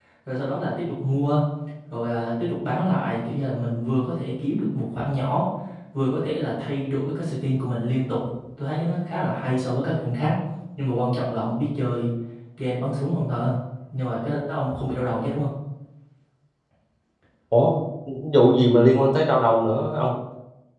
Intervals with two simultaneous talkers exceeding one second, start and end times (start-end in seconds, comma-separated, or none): none